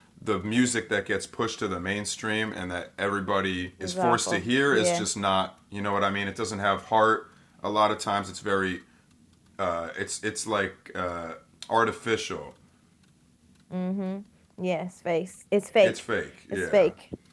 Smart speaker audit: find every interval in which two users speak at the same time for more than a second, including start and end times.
3.8-5.1

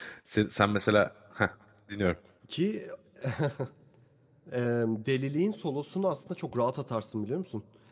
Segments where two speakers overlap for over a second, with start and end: none

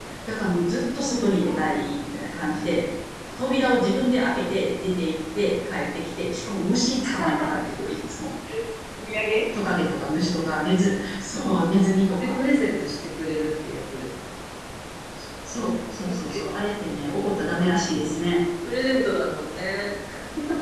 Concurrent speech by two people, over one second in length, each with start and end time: none

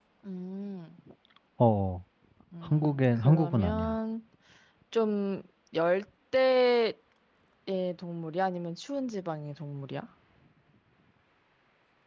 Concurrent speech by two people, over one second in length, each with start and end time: 2.6-4.0

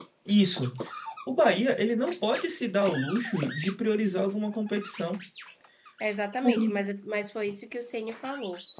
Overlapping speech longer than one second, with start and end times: none

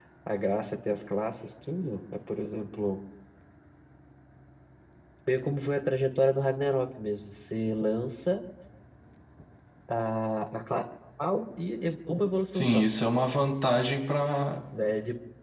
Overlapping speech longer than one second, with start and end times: none

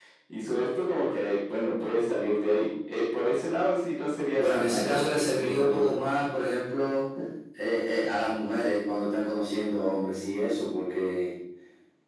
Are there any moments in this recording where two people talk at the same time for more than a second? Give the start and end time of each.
4.4-5.9

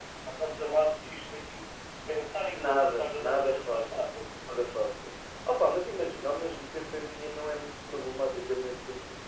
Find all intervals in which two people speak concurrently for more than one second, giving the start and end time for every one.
2.5-4.1

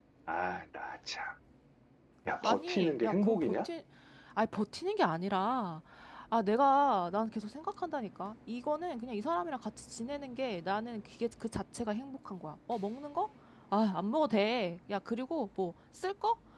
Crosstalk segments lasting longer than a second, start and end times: 2.4-3.7

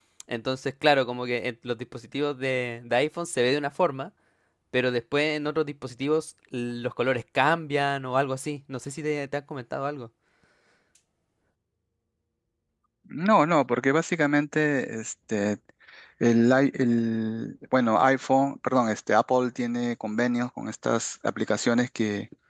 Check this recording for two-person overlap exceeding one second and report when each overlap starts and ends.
none

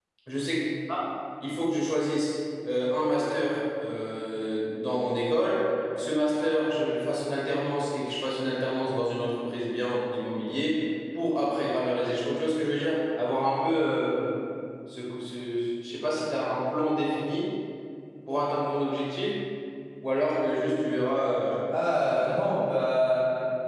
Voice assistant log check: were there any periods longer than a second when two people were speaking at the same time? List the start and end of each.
none

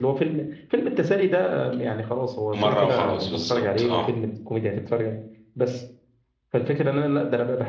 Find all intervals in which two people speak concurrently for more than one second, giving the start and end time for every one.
2.6-4.1

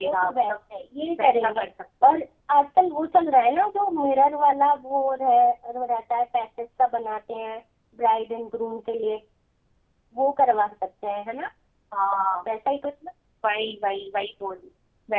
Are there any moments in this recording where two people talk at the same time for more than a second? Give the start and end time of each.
none

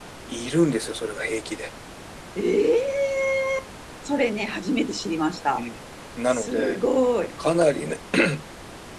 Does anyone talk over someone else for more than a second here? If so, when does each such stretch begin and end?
none

